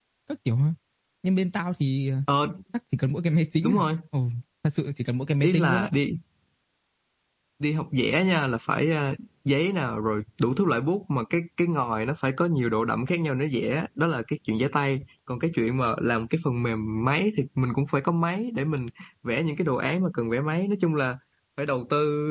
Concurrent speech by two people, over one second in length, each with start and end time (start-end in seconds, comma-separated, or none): none